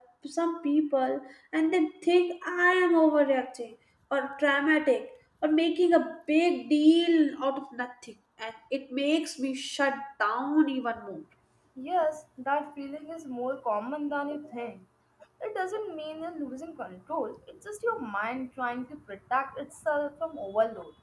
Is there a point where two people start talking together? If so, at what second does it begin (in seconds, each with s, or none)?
none